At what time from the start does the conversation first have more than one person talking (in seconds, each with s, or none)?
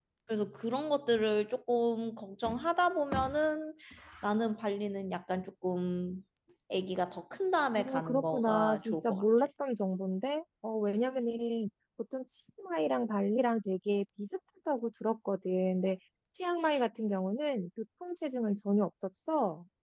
7.7 s